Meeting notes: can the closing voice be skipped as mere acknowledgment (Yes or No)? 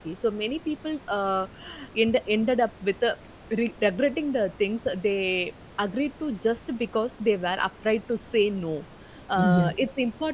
Yes